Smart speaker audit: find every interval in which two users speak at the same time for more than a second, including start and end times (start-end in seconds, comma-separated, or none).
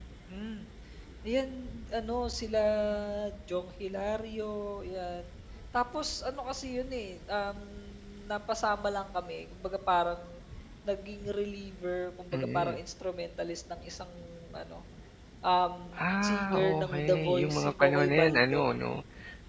16.2-18.7